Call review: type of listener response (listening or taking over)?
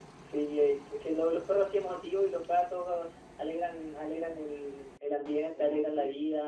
listening